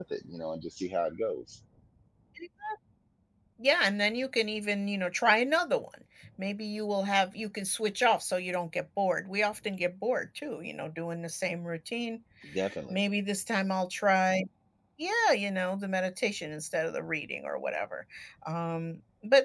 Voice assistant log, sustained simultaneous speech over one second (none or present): none